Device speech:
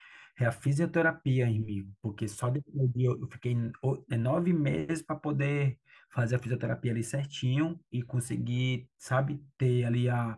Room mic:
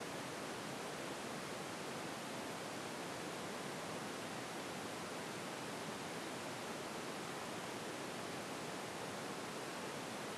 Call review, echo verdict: none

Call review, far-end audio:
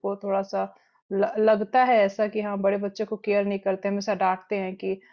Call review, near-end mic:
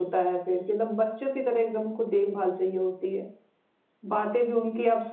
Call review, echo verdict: none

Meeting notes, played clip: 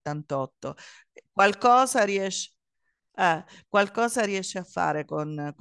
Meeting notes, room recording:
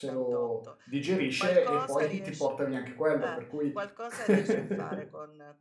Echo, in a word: present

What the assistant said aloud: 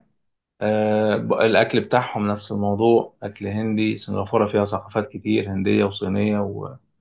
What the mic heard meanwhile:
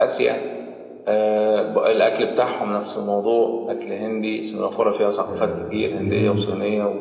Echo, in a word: present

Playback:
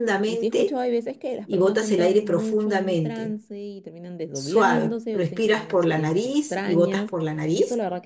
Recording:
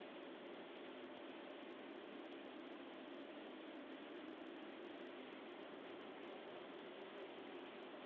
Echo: none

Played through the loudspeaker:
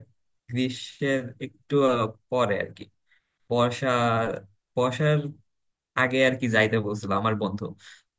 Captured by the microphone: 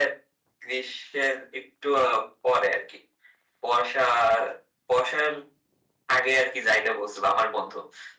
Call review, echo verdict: present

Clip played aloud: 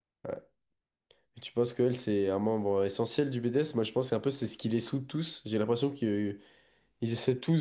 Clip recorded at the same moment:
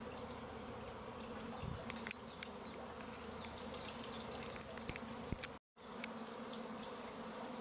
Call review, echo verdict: none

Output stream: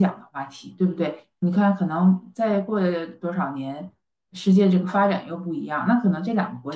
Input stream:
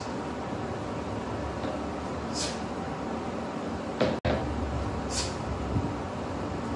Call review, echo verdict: none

